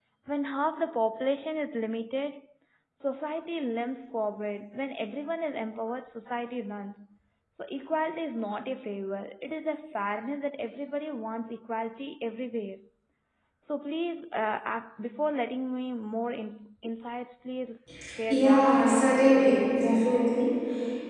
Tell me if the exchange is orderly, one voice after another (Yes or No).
No